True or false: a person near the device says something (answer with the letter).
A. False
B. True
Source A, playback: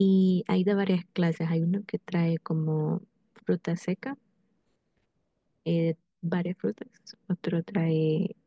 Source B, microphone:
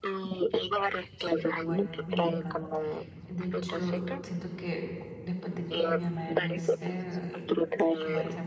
B